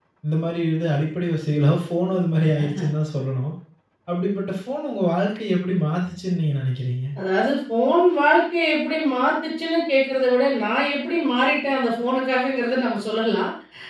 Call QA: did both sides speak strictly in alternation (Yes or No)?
Yes